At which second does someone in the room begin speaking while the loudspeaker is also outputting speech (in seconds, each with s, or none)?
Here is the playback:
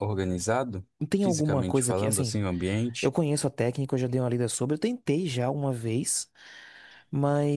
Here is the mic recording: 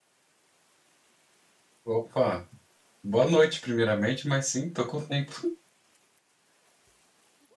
1.9 s